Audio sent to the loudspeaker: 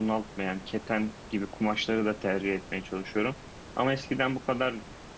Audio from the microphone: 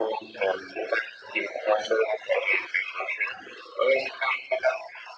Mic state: echo only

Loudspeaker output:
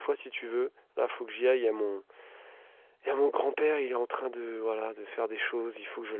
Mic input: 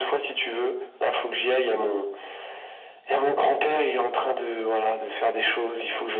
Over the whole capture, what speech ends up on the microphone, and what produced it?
echo only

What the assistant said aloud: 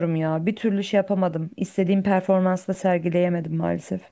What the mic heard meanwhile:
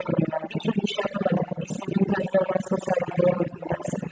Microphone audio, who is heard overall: echo only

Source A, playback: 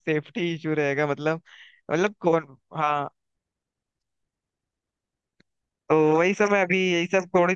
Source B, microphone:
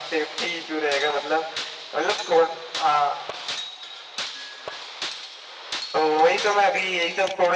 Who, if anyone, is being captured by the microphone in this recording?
echo only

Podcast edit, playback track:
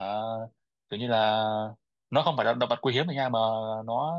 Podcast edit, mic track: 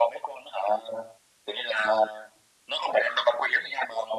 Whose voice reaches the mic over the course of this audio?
echo only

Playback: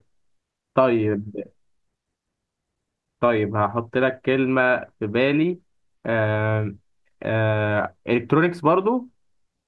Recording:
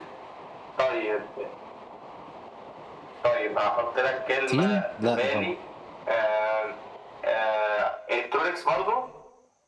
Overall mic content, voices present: both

